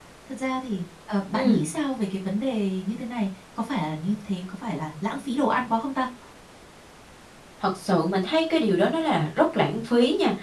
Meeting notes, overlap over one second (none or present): none